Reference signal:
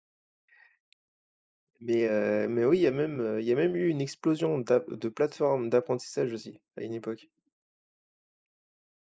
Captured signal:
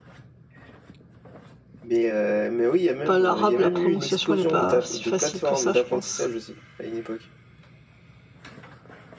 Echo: present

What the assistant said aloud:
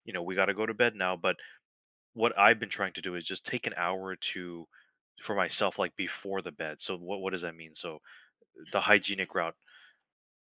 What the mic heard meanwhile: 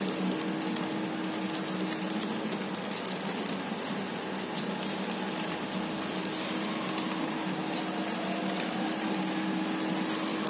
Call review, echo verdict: none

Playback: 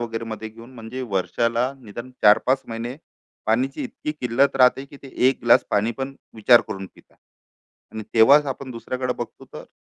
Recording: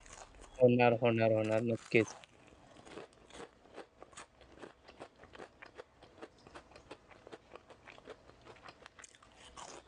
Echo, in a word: none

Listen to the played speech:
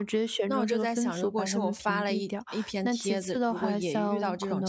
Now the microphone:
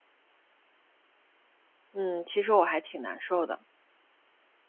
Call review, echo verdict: none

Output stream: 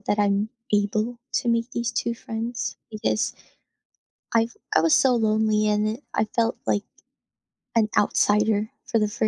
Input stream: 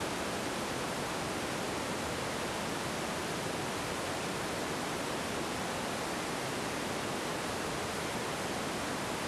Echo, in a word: none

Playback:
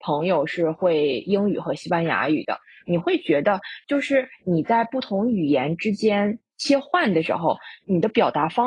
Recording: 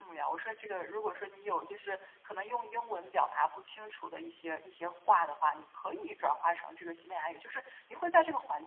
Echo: none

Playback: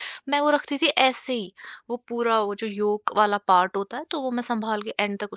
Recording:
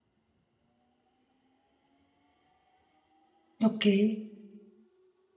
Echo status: none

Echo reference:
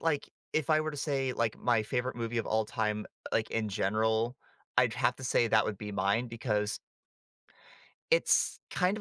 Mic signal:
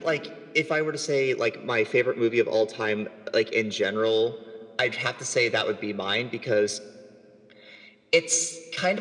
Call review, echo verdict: present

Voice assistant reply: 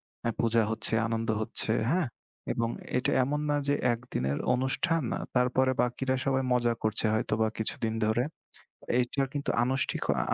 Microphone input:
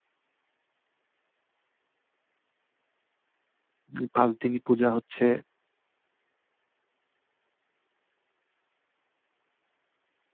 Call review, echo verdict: none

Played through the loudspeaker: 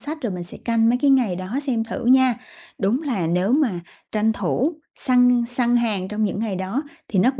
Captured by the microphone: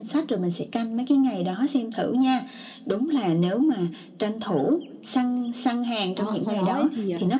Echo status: present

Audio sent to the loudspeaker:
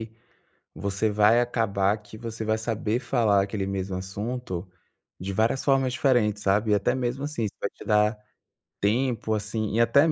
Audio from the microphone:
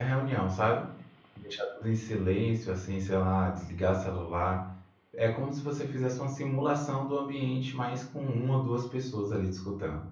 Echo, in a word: none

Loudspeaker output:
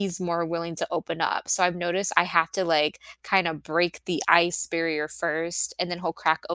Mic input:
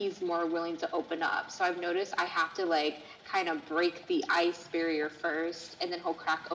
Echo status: present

